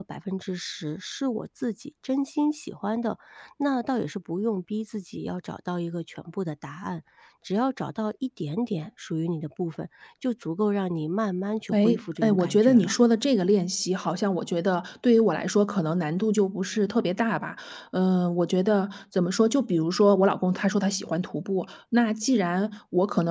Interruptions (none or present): present